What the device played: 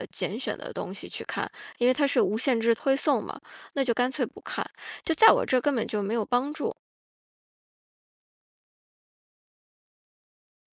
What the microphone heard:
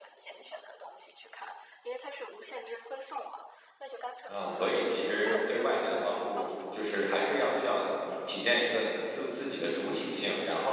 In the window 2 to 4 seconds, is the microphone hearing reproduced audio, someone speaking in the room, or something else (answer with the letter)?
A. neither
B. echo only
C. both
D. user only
B